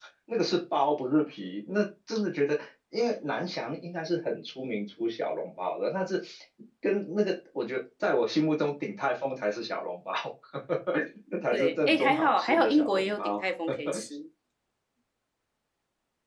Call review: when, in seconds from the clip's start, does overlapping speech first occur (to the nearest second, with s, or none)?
12 s